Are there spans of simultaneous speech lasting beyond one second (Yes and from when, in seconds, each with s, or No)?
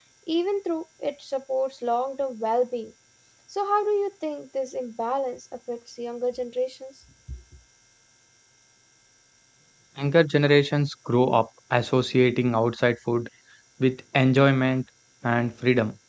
No